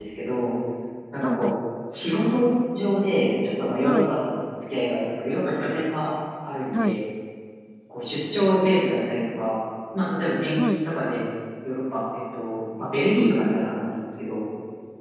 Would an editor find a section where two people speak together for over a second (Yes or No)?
No